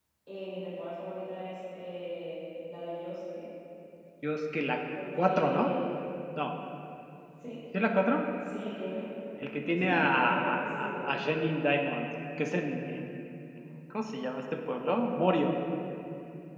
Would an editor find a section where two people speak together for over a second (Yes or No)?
Yes